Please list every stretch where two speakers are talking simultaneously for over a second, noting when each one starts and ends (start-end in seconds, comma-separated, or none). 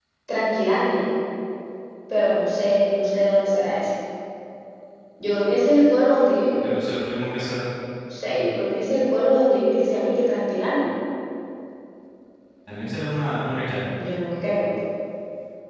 none